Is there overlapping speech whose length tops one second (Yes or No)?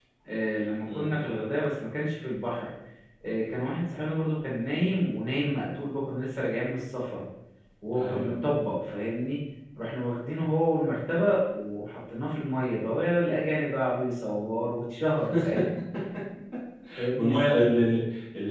No